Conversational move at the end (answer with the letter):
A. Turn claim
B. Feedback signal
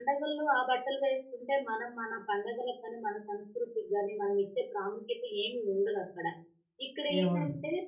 B